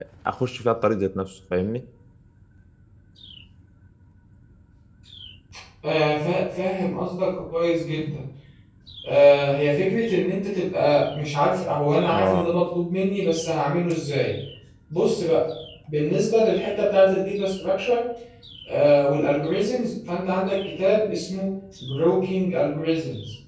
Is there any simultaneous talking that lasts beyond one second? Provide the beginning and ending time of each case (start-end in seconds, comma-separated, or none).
none